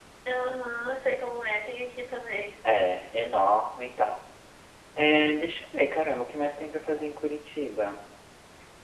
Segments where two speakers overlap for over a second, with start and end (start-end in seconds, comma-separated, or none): none